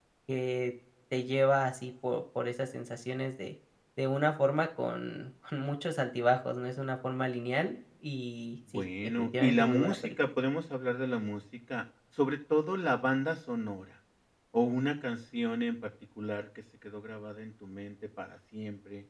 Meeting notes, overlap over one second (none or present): present